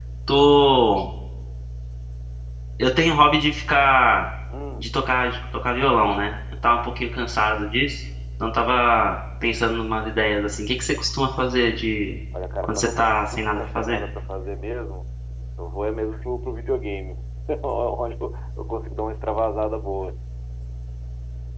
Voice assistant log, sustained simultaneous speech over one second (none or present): present